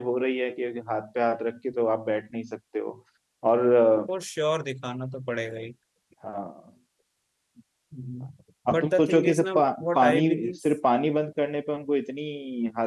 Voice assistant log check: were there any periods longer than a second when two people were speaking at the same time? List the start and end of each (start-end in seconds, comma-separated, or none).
8.7-10.6